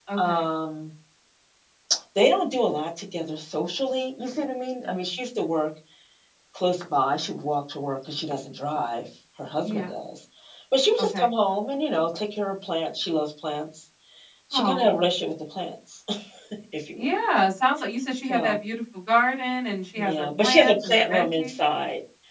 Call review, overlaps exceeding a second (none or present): present